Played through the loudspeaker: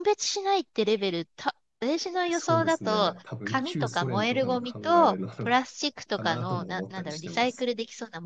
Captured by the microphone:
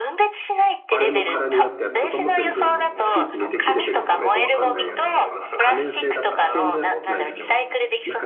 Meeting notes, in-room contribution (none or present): present